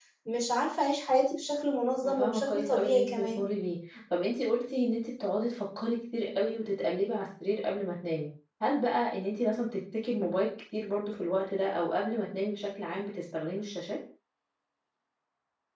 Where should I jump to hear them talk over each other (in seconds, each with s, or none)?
2.0 s